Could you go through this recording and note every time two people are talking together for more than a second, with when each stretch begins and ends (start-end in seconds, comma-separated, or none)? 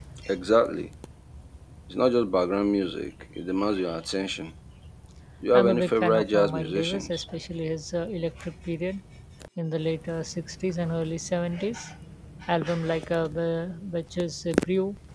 5.5-7.3